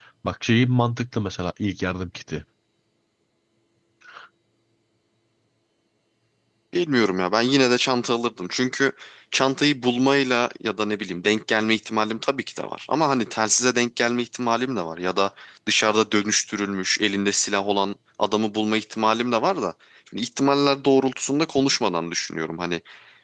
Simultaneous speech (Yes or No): No